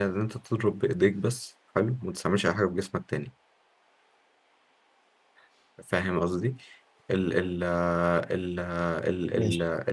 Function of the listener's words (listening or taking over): listening